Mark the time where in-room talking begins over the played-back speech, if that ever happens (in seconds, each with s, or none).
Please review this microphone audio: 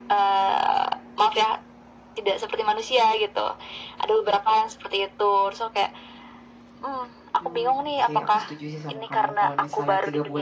7.4 s